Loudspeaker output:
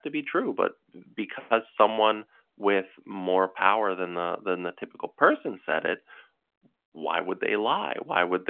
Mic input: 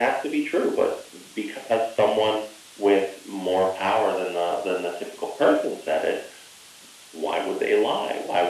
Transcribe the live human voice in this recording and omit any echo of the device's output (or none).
none